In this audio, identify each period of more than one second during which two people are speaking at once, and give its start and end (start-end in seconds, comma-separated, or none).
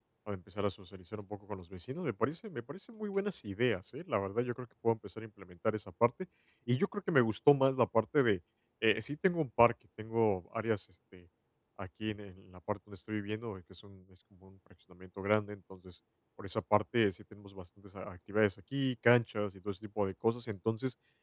none